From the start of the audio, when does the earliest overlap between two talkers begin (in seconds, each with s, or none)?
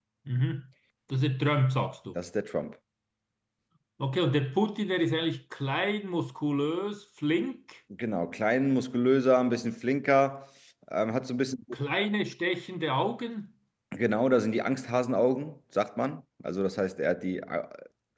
none